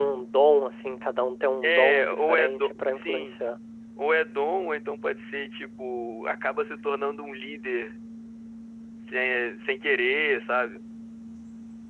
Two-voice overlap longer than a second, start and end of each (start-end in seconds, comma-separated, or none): 1.6-3.3